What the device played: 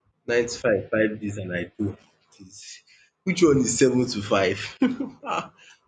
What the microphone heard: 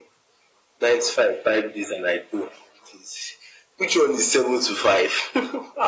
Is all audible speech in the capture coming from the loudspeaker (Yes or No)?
Yes